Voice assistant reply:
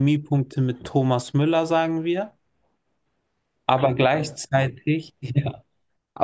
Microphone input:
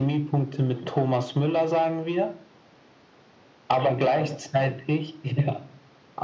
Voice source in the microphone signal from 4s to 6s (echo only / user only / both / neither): echo only